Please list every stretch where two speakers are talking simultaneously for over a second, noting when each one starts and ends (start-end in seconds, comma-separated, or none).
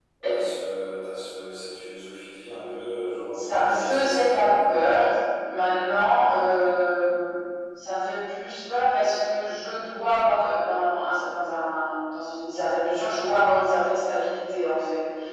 3.3-4.7